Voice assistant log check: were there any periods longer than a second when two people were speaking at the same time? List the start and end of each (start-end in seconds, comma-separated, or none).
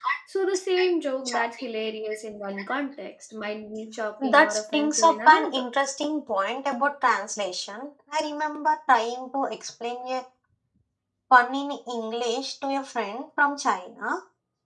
4.2-5.6